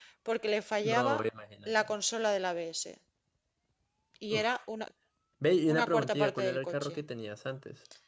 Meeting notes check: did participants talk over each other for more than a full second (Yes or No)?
Yes